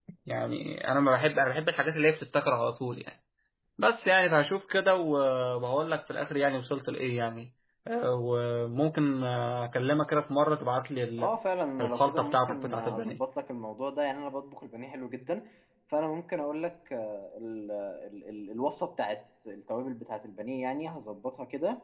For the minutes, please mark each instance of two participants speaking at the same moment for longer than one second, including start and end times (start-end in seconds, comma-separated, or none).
11.8-13.2